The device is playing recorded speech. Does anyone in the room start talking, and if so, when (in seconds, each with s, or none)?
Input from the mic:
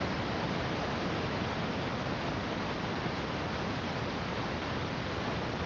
none